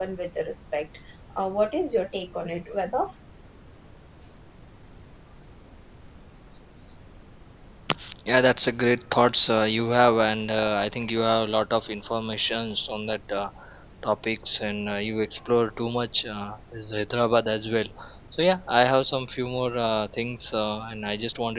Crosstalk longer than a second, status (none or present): none